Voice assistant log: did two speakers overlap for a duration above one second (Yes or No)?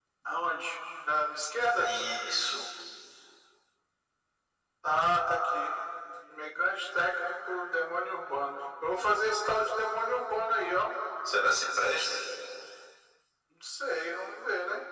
No